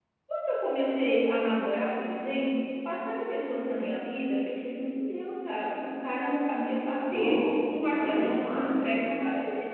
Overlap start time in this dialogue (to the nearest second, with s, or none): 7 s